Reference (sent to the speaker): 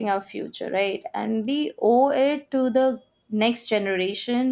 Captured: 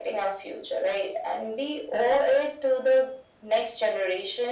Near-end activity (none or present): none